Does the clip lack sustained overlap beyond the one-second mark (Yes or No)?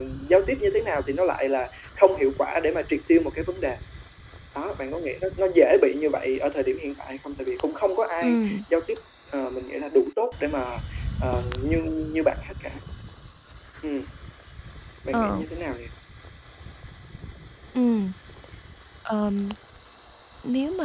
Yes